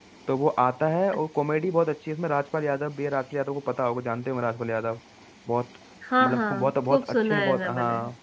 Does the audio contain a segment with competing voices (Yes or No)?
Yes